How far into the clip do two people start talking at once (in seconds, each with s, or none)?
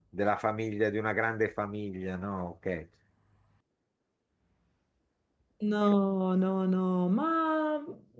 none